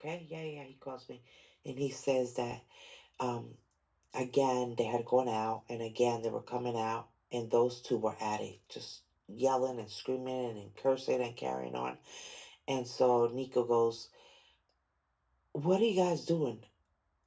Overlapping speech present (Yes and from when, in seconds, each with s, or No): No